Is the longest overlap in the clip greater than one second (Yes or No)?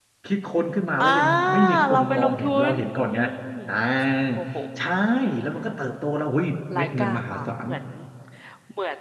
Yes